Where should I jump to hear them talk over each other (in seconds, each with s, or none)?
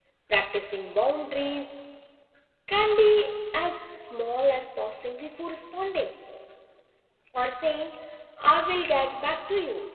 none